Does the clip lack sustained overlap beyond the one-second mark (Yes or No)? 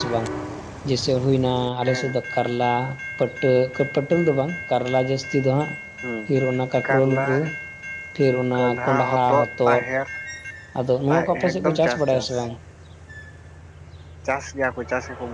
No